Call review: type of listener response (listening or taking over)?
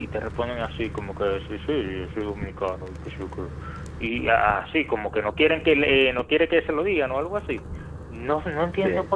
listening